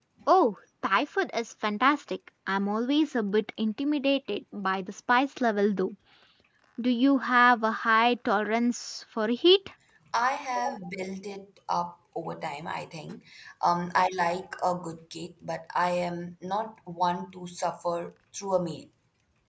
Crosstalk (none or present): none